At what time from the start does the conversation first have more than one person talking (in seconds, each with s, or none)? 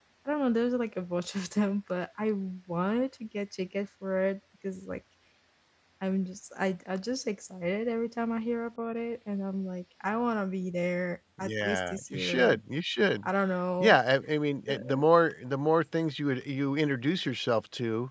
11.4 s